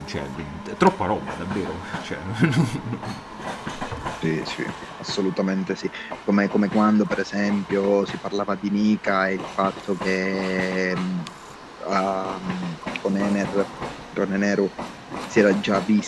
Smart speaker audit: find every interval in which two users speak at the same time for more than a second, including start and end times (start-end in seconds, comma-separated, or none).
none